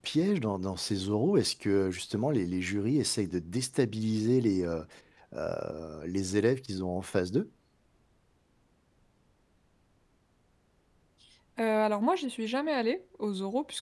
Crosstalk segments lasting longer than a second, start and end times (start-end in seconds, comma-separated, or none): none